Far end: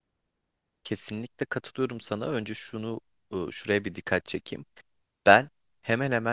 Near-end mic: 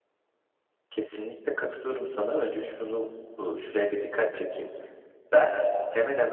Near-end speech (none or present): none